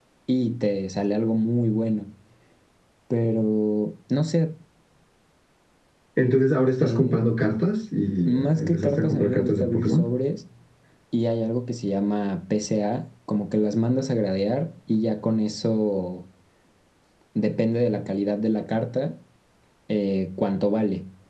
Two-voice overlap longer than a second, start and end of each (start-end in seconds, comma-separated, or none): 8.3-10.1